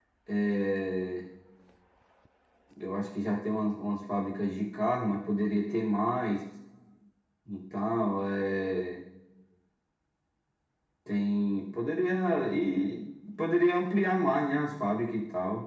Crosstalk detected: No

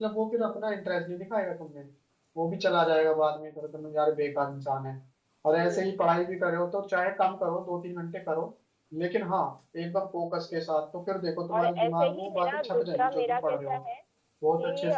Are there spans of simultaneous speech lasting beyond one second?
Yes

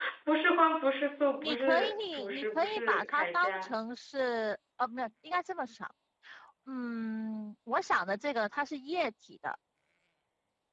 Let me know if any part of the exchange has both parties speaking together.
Yes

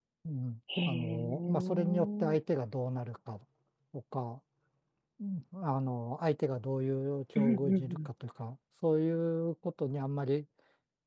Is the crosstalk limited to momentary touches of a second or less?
No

